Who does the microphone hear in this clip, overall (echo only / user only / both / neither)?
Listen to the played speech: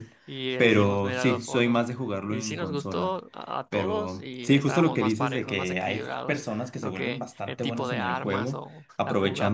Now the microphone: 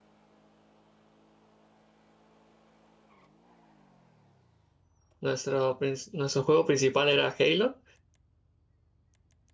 user only